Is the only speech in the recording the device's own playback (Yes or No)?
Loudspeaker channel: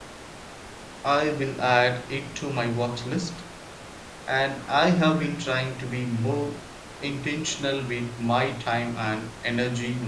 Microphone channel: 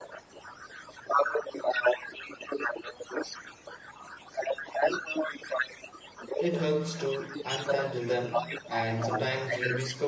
No